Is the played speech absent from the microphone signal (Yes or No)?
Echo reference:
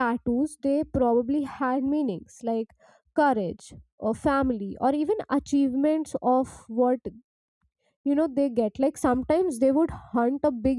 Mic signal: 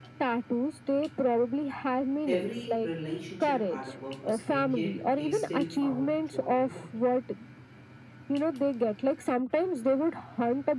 No